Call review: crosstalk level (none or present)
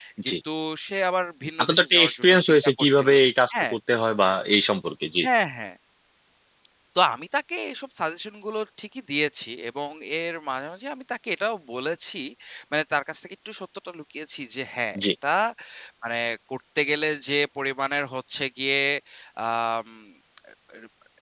present